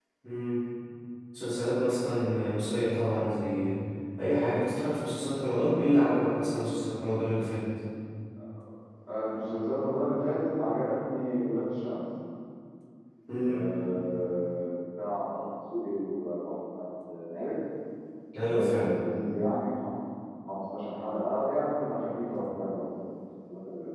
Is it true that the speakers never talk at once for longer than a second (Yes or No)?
Yes